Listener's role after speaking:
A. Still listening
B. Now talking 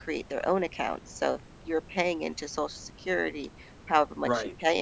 A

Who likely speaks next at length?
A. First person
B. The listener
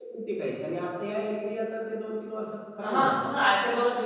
B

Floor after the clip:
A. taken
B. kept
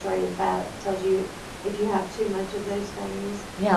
A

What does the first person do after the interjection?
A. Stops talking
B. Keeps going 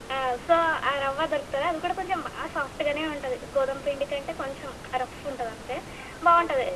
B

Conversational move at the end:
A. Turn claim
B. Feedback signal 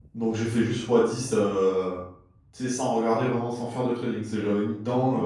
A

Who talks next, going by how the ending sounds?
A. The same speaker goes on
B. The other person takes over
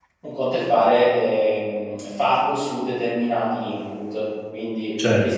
B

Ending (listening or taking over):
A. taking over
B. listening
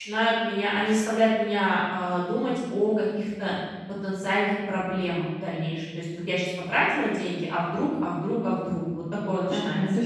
A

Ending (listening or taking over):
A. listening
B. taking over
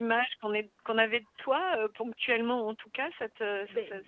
B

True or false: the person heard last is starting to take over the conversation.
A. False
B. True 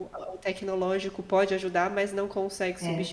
A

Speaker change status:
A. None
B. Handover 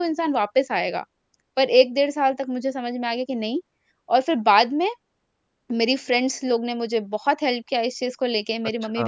A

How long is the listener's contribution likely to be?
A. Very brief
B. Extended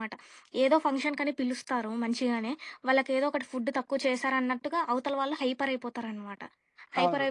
A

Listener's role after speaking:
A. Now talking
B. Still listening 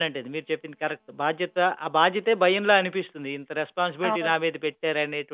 B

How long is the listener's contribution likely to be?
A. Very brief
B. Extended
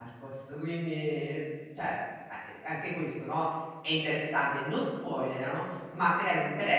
A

